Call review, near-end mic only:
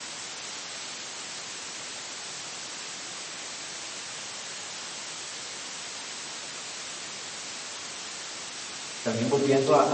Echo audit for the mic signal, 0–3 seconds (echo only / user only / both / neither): neither